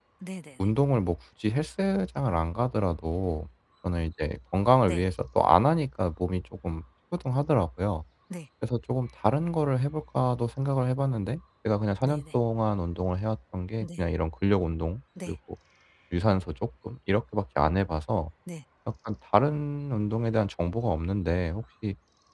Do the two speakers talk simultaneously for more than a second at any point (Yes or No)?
No